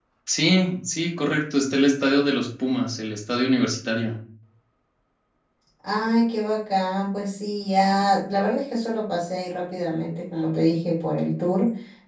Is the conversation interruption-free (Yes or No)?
Yes